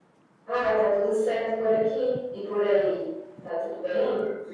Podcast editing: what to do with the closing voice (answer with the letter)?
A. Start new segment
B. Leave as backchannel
A